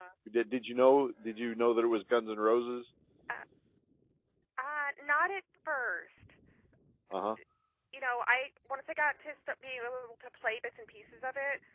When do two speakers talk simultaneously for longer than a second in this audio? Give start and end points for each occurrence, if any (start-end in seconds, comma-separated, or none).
none